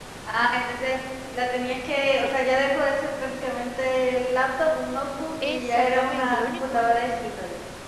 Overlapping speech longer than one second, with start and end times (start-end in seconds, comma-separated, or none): 5.4-6.9